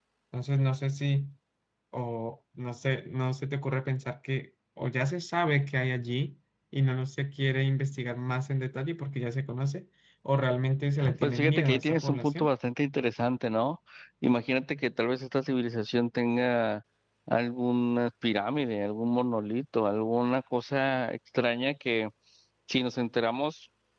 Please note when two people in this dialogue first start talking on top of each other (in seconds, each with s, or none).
11.0 s